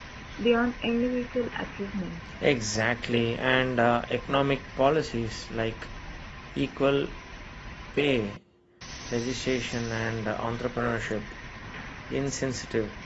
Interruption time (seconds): none

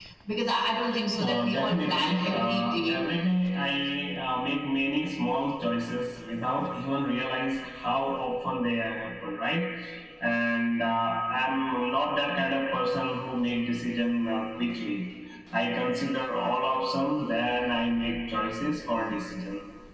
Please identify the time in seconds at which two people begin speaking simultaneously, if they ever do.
1 s

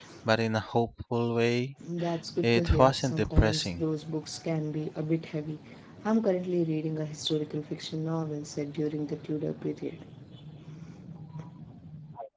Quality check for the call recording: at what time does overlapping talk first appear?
2 s

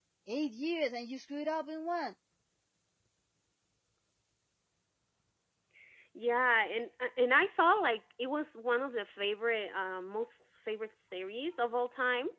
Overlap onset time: none

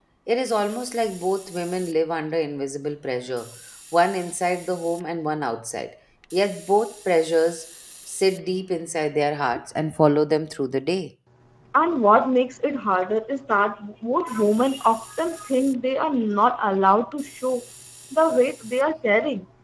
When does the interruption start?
none

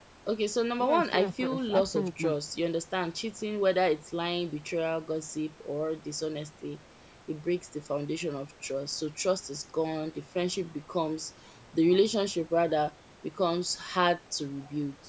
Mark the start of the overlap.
1 s

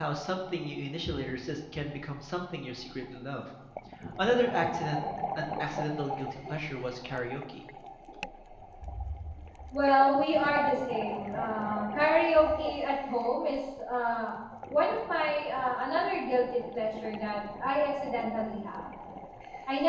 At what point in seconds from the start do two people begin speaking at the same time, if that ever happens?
none

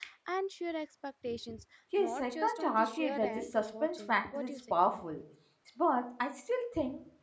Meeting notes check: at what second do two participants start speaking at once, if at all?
2 s

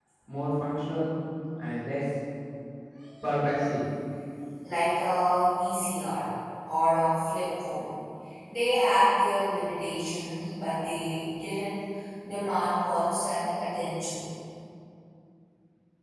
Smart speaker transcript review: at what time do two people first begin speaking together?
none

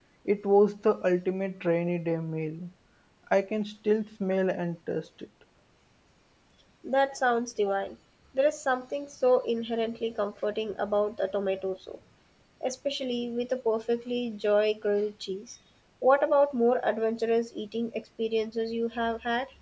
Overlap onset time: none

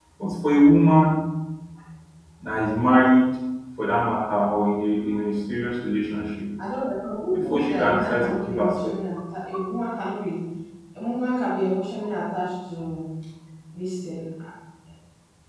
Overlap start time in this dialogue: 7 s

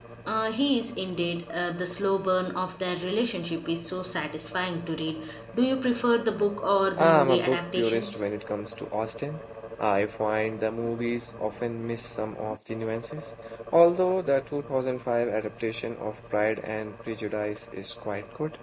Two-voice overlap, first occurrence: 7 s

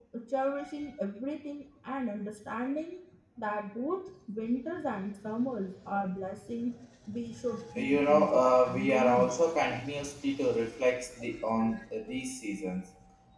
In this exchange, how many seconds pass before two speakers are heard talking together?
8 s

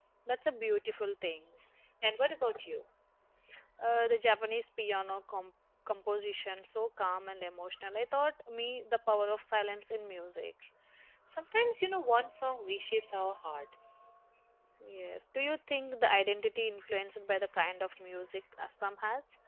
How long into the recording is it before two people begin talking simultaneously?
none

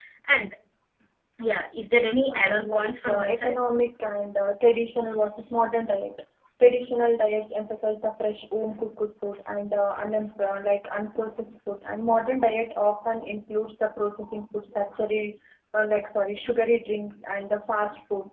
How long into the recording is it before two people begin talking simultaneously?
2 s

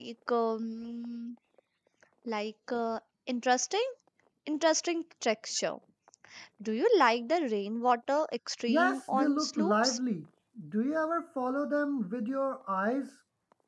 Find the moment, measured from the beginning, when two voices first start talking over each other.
9 s

